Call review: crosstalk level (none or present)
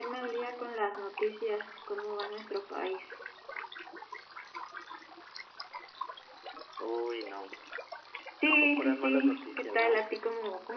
present